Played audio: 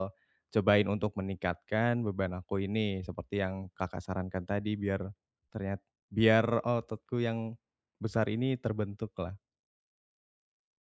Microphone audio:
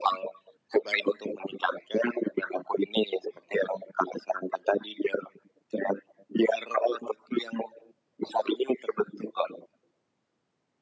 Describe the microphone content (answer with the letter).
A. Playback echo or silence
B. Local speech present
A